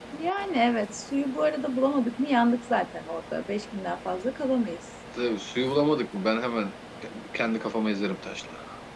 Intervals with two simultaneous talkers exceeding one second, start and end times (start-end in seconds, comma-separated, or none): none